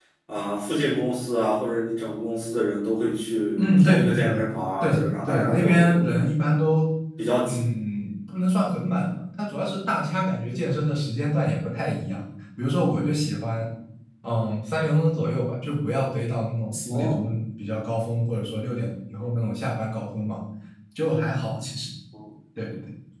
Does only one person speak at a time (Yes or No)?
No